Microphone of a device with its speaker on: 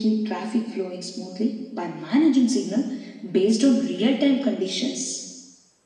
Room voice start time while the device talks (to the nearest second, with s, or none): none